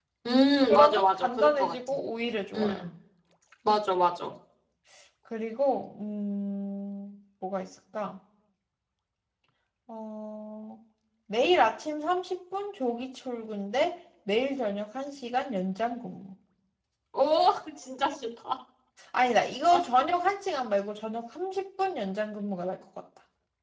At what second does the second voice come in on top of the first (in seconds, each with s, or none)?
0.7 s